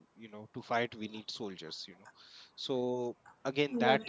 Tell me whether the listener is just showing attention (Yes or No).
Yes